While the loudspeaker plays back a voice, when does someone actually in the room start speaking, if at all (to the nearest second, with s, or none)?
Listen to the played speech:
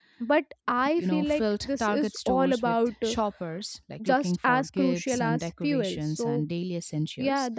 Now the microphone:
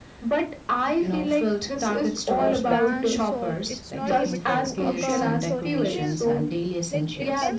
2 s